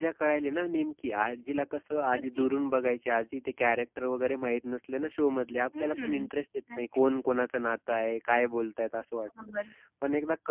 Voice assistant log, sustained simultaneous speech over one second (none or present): none